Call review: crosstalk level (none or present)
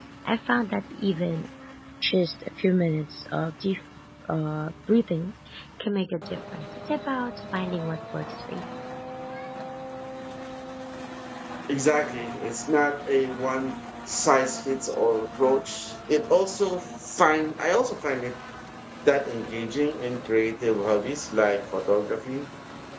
none